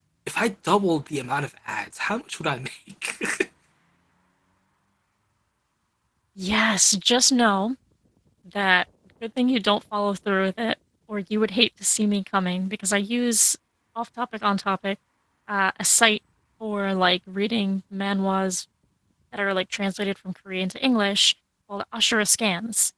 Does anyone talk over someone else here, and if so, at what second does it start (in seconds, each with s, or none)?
none